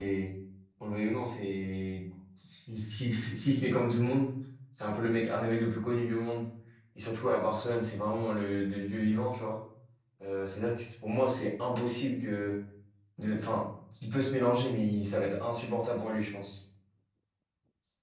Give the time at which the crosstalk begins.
none

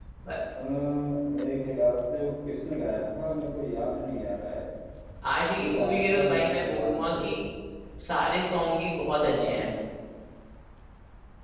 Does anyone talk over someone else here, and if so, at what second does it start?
5.6 s

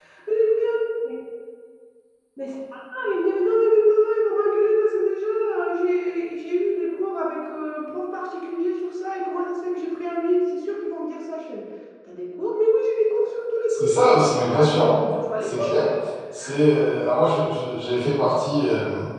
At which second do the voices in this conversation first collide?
13.7 s

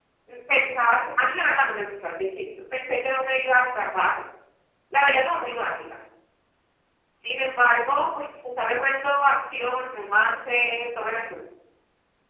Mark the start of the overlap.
none

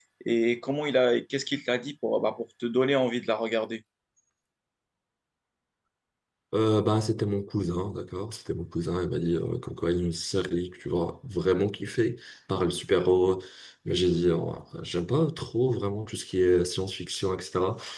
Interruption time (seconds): none

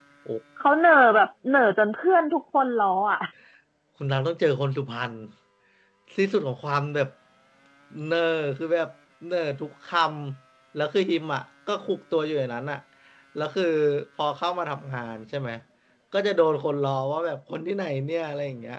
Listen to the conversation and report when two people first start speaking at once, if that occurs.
none

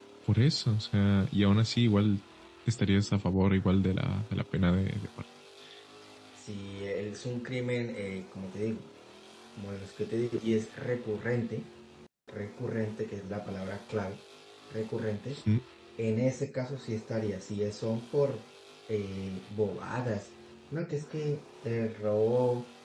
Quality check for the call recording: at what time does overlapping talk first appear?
none

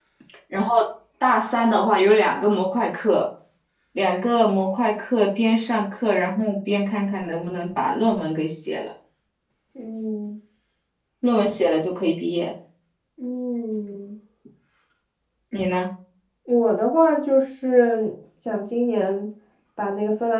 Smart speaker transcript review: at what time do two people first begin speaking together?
none

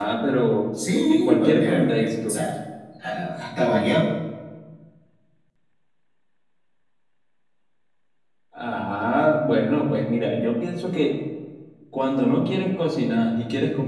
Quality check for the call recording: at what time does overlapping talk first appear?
1.1 s

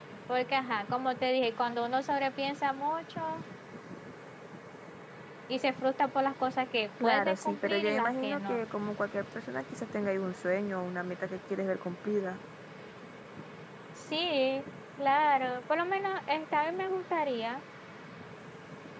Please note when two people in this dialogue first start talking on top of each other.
7.0 s

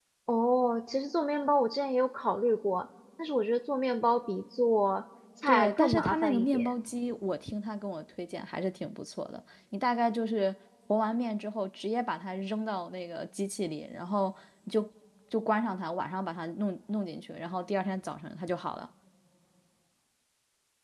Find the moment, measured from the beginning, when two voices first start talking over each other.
5.5 s

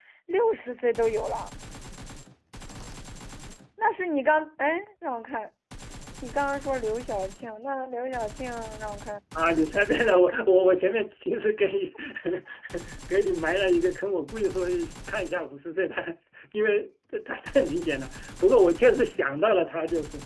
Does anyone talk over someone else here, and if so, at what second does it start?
none

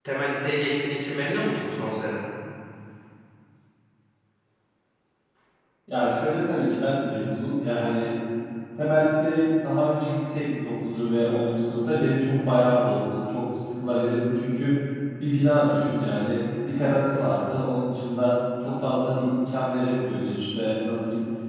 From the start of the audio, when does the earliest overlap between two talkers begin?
none

